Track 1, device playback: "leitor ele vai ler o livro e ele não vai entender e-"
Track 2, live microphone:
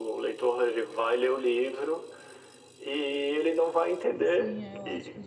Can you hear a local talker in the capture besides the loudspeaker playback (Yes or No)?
Yes